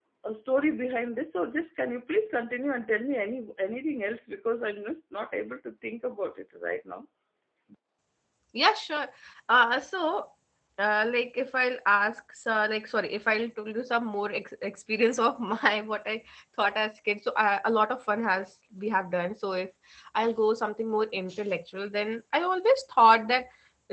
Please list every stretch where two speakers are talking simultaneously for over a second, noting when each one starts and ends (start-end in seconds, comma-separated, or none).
none